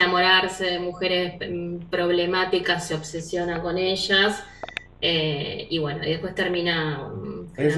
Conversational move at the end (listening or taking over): taking over